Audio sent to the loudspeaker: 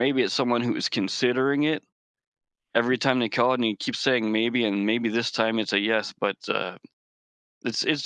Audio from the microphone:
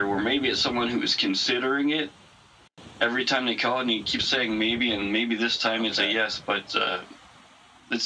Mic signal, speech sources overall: both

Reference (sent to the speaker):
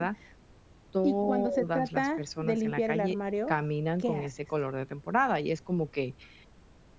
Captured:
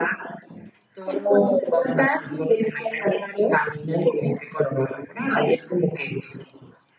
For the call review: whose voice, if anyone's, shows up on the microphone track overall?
echo only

